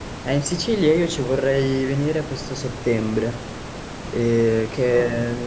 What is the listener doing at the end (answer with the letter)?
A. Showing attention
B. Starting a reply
A